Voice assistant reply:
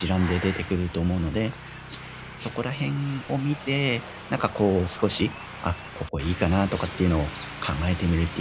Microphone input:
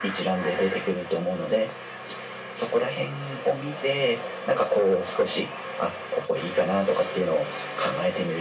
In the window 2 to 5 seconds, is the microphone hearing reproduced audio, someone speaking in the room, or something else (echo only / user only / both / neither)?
echo only